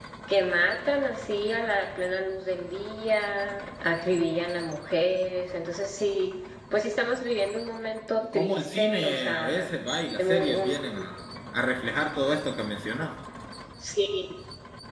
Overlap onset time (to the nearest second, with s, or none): 8 s